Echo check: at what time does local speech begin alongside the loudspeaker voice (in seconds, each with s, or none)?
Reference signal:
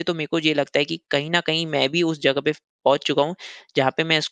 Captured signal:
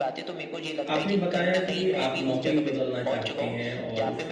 0.9 s